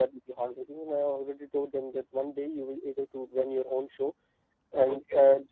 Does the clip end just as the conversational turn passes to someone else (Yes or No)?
No